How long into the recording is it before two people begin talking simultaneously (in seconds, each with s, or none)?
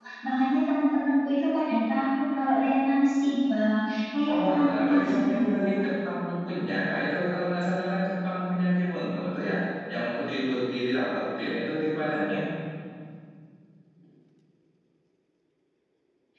4.2 s